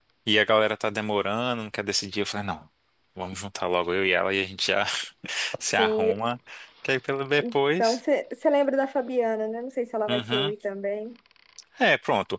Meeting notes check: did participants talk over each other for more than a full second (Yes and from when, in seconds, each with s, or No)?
No